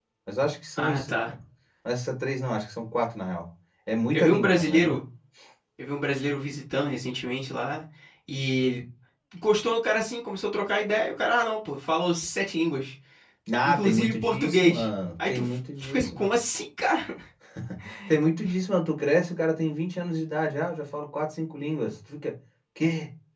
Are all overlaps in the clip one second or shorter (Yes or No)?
No